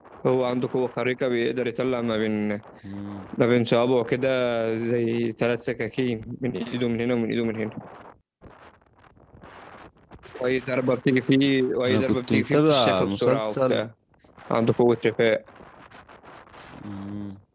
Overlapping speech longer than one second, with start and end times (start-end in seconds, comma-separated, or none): 11.9-13.8